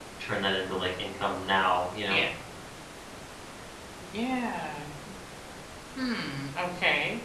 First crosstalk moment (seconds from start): none

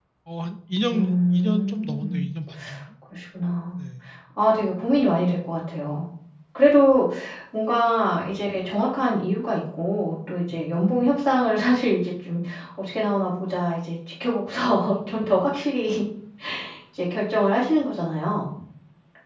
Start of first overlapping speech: 0.9 s

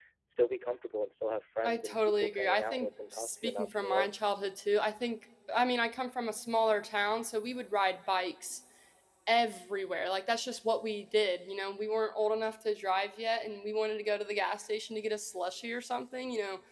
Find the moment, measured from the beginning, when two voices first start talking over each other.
1.6 s

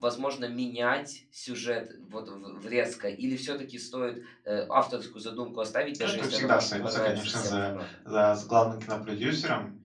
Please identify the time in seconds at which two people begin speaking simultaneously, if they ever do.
5.9 s

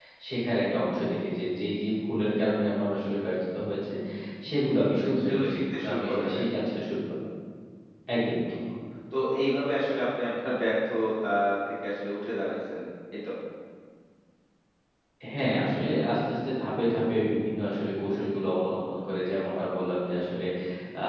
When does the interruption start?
5.2 s

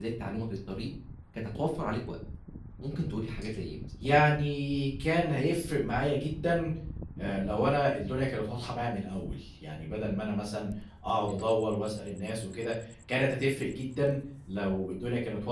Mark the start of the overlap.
none

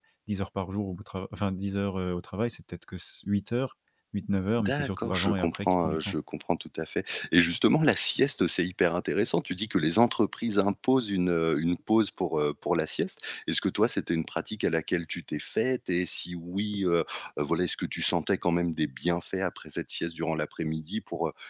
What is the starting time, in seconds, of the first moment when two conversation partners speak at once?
4.6 s

